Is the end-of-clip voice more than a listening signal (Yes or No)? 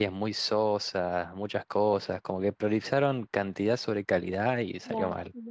Yes